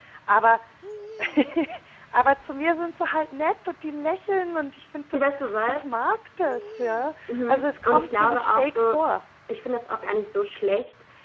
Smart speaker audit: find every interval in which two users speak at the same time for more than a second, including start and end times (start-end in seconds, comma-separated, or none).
7.3-8.9